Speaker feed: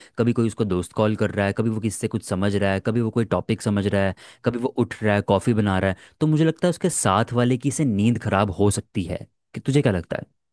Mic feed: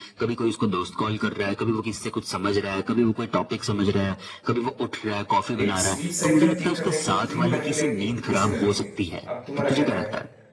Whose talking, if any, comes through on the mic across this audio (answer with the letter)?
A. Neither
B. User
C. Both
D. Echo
C